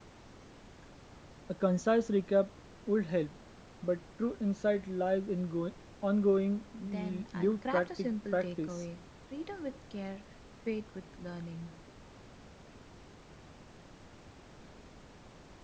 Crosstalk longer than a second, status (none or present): present